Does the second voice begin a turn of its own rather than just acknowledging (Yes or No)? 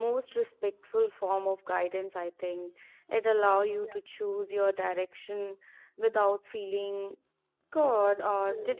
No